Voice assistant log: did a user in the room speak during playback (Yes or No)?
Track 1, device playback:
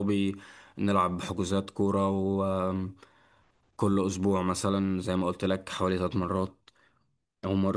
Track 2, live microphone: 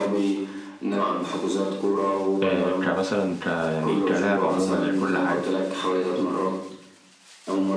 Yes